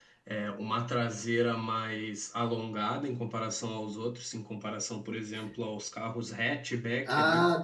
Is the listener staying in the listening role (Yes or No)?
No